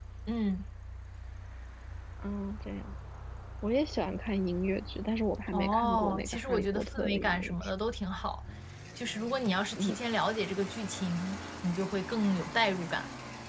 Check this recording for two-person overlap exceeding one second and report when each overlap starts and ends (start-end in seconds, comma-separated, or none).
5.5-7.7